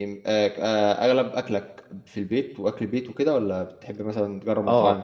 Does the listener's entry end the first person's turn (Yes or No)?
Yes